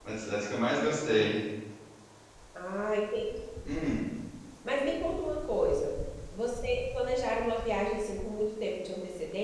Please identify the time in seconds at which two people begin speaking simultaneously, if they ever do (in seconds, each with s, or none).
none